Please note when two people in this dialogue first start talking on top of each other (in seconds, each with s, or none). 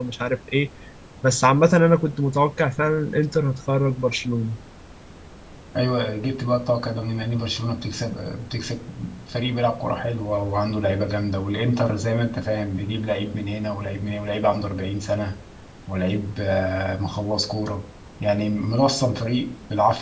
none